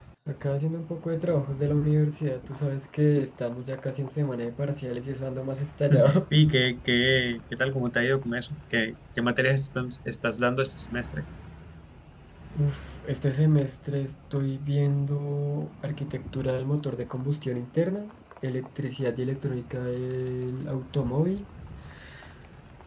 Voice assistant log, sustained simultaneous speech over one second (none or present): none